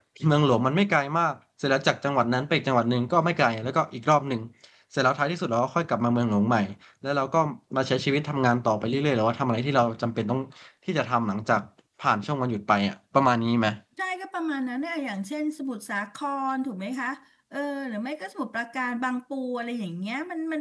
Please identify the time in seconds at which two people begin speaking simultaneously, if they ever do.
none

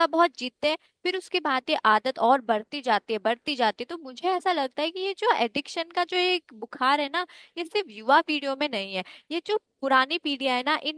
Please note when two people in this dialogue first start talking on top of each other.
none

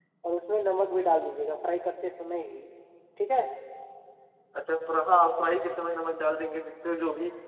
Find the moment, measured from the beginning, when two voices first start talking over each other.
none

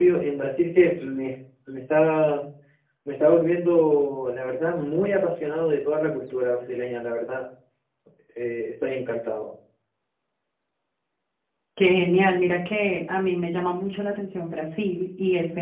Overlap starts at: none

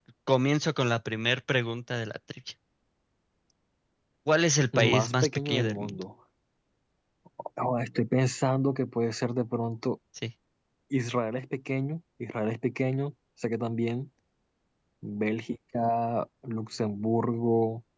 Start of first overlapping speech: 5 s

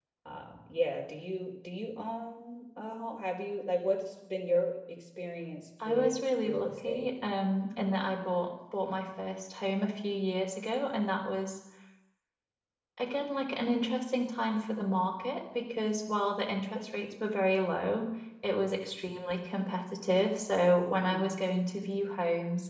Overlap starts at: 6 s

